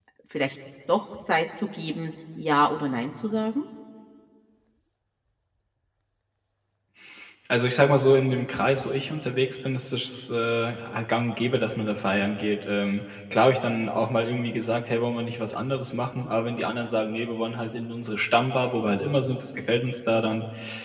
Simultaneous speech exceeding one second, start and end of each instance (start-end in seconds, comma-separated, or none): none